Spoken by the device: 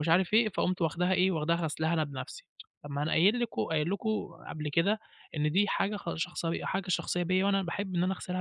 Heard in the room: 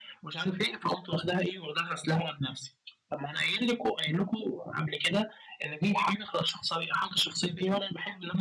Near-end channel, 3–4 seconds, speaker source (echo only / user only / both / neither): echo only